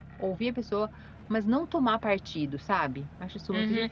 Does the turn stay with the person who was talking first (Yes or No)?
No